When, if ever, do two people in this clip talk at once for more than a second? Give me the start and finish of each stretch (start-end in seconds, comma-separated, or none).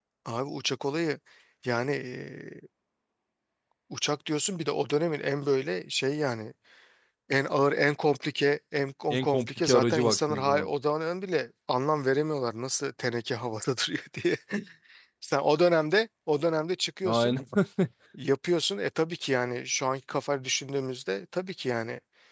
9.1-10.7